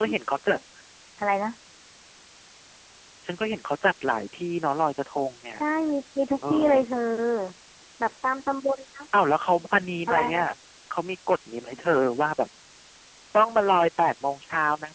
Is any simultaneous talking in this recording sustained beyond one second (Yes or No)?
No